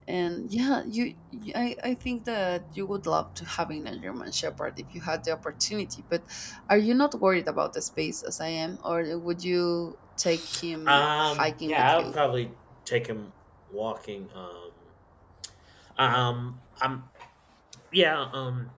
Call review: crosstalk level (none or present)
present